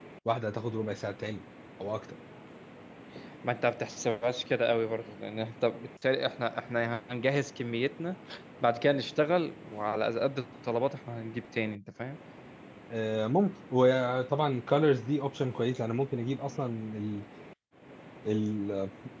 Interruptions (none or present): none